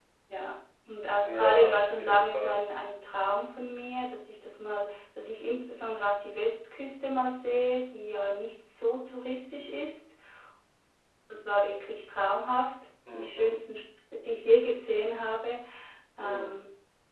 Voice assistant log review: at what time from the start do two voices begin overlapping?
1.2 s

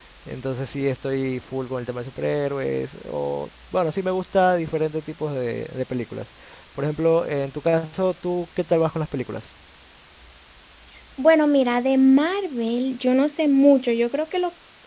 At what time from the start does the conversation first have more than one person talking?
none

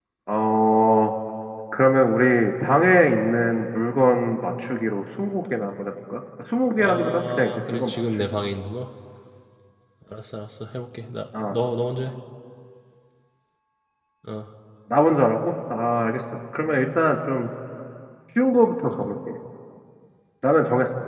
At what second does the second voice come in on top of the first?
6.8 s

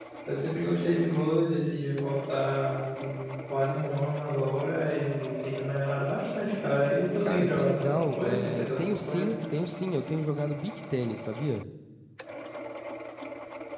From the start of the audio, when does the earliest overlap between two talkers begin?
7.2 s

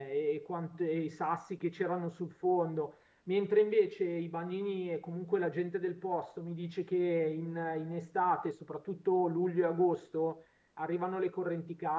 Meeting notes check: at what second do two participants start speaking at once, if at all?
none

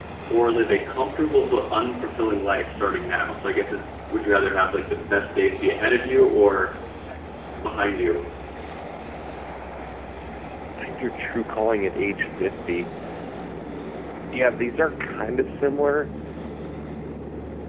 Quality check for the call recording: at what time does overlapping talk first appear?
none

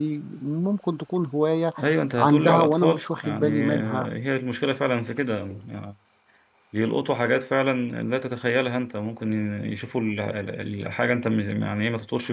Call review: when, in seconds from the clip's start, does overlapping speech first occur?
2.2 s

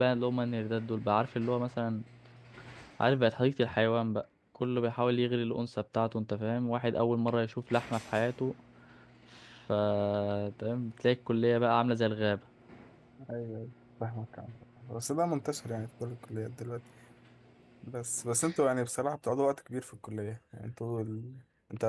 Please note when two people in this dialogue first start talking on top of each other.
none

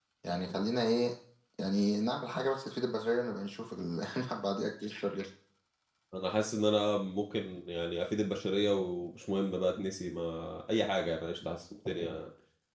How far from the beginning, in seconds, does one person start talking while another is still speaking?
none

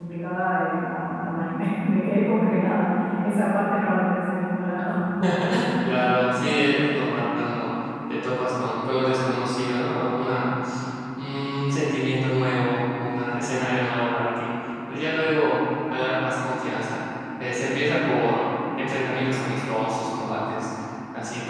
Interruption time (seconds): none

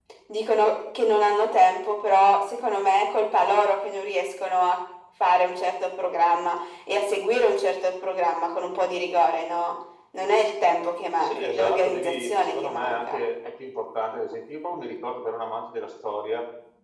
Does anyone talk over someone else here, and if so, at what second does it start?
11.2 s

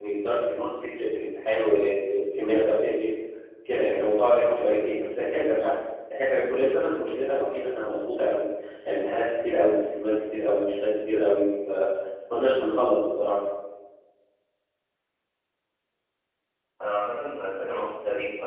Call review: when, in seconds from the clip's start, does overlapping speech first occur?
none

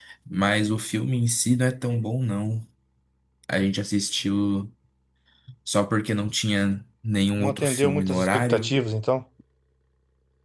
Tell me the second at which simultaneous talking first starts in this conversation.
7.4 s

